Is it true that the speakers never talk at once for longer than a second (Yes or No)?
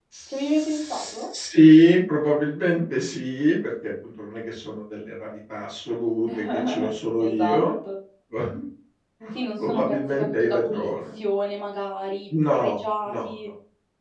No